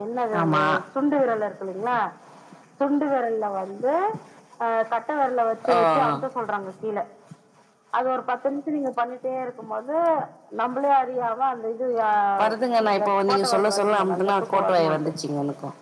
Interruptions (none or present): present